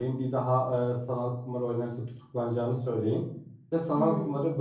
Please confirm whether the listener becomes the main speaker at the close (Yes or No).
No